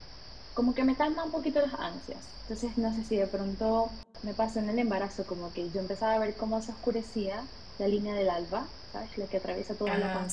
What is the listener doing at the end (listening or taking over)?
listening